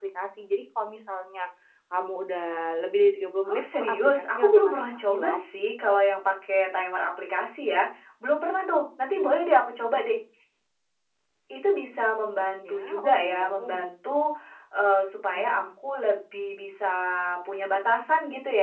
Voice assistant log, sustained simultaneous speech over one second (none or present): present